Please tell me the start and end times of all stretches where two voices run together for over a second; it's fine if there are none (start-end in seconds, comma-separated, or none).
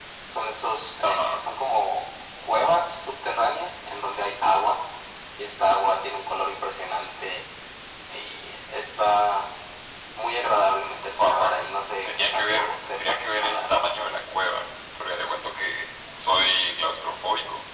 12.1-13.7